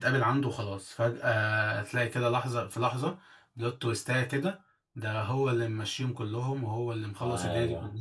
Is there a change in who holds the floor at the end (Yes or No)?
No